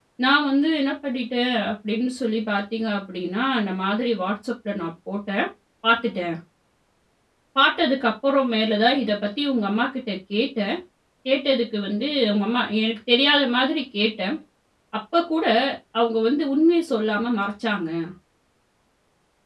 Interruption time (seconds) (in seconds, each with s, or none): none